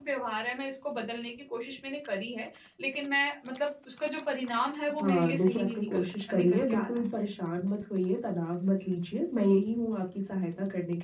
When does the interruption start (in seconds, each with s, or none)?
5.0 s